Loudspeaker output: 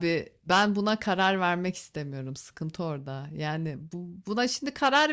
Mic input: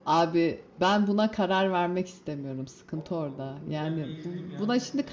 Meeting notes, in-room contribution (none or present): present